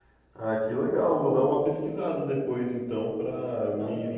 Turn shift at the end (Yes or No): Yes